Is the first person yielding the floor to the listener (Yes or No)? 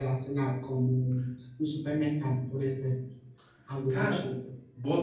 Yes